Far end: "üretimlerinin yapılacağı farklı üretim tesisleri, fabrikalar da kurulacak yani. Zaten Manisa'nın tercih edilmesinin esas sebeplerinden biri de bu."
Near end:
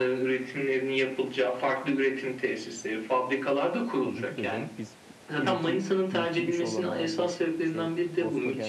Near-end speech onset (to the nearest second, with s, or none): 4 s